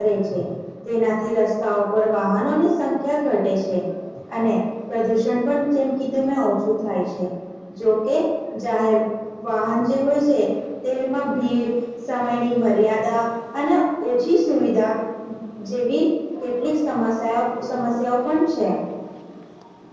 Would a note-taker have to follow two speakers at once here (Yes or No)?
No